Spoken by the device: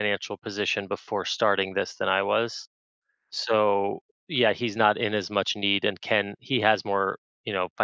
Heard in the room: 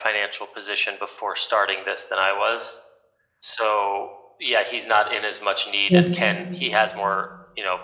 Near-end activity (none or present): present